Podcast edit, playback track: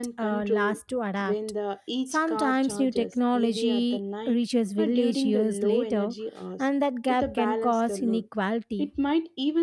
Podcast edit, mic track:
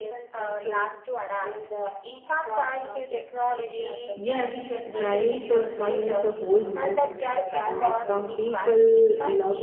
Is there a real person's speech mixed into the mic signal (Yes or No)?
Yes